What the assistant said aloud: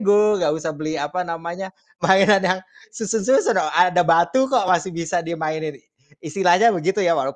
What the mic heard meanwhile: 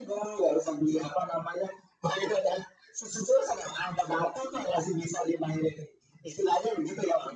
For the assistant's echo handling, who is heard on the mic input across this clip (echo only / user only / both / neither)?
echo only